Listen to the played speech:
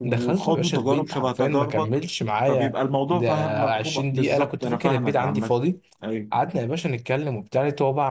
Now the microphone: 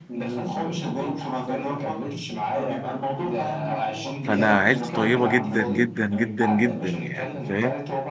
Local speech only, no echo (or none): فانا عيلتي طيبه جدا جدا جدا جدا يعني فاهم